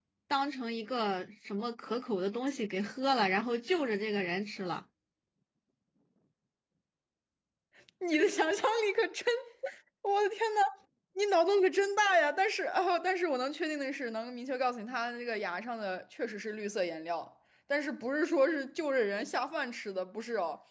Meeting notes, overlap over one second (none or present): none